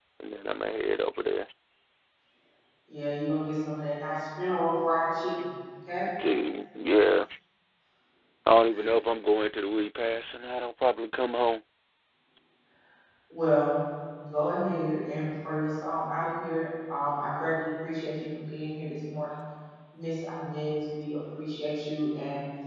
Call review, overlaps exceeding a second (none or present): none